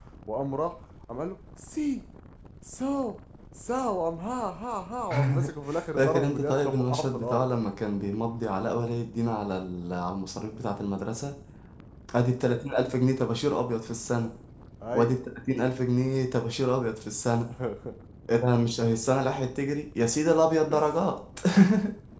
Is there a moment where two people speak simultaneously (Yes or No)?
Yes